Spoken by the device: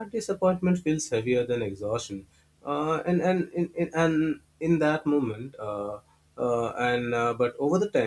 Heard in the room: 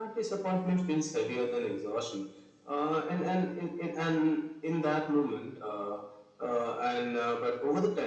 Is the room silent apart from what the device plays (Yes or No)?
Yes